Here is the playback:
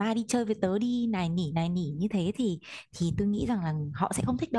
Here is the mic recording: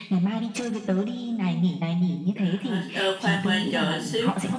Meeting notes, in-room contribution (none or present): present